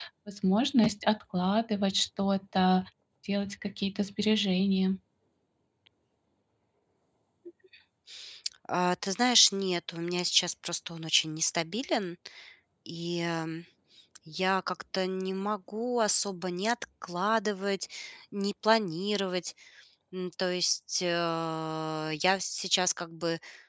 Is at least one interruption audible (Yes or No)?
No